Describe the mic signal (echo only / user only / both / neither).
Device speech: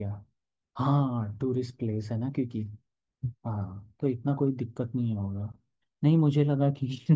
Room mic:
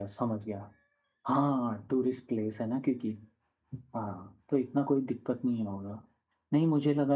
echo only